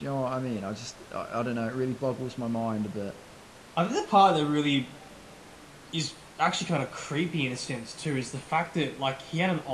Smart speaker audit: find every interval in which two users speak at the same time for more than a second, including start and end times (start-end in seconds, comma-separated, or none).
none